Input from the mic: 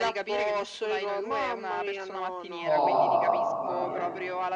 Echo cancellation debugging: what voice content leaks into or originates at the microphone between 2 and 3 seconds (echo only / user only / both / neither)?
both